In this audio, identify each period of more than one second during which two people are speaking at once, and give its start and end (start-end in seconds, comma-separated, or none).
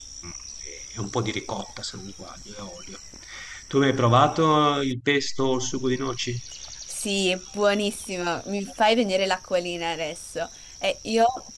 none